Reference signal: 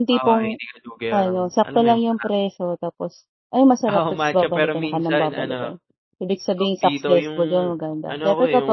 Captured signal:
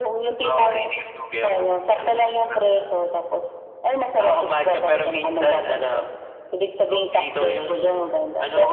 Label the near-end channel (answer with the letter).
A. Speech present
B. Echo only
B